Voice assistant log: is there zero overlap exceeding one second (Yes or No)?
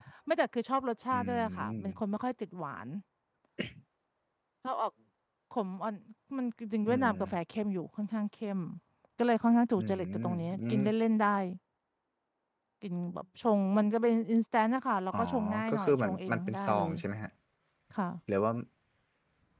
No